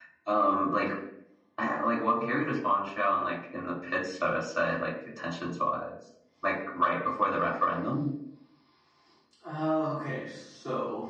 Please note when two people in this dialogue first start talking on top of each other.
none

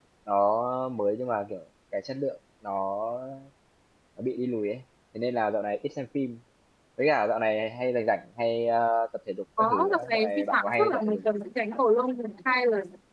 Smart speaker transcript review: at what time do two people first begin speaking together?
9.6 s

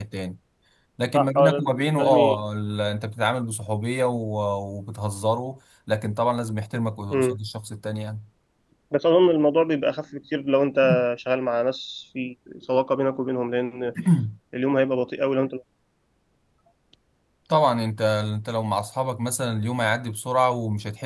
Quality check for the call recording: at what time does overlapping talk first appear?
1.1 s

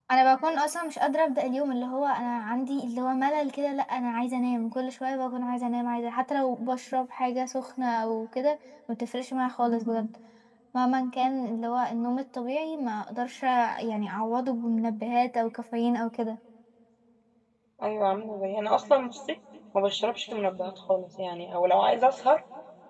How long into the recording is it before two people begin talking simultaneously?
none

